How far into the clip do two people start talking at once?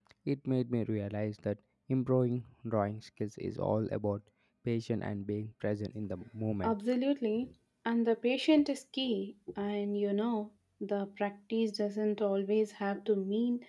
none

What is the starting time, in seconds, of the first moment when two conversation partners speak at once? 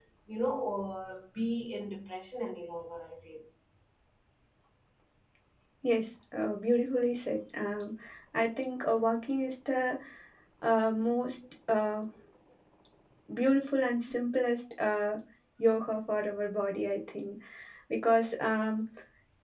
none

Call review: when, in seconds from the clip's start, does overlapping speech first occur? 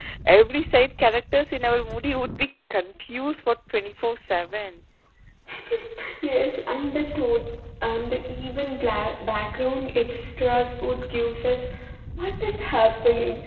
none

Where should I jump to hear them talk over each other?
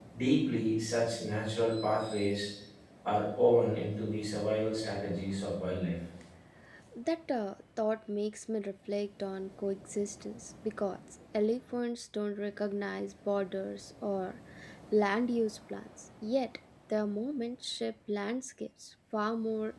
none

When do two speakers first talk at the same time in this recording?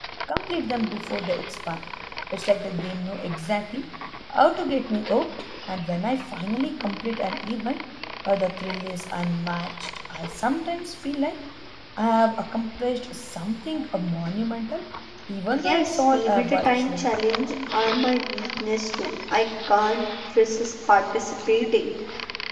16 s

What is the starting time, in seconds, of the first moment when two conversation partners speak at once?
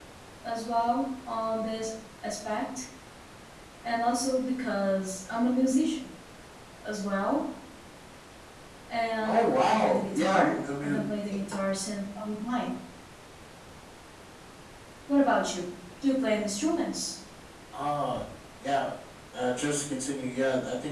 9 s

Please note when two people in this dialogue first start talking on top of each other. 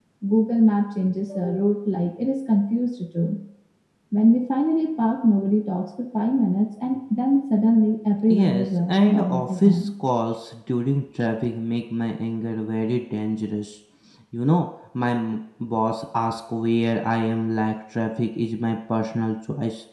8 s

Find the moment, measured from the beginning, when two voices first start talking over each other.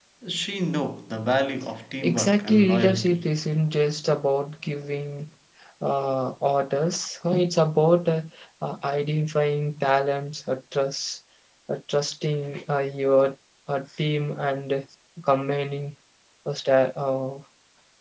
2 s

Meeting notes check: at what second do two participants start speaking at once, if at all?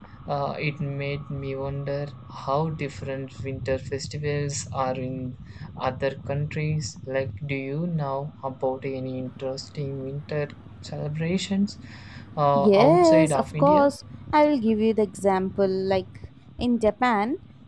13 s

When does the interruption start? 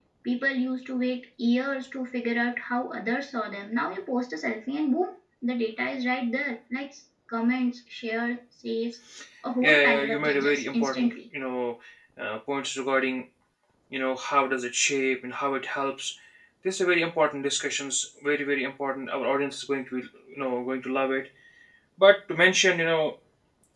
10 s

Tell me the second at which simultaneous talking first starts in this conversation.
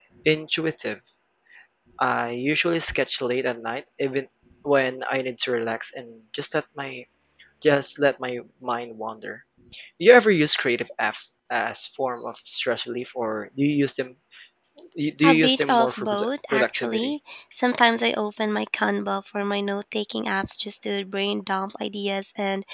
15 s

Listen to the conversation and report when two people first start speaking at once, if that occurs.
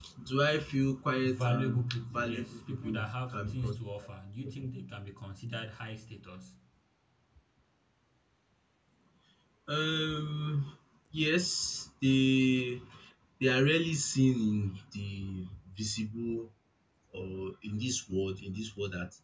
1 s

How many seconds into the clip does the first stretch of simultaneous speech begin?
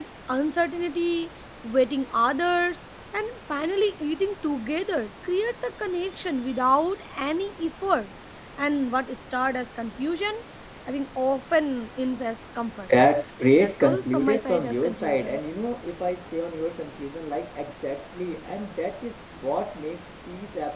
14 s

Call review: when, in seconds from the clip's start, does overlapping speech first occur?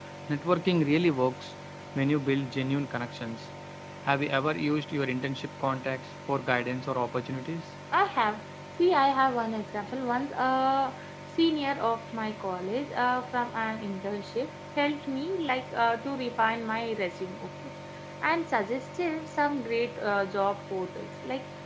none

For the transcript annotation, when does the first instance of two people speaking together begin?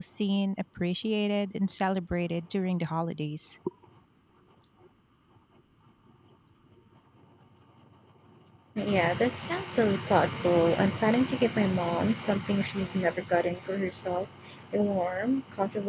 none

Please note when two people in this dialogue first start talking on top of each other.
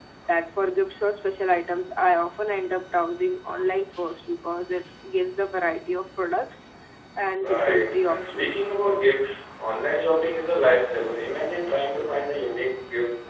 7 s

